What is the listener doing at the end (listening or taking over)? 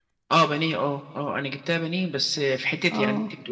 listening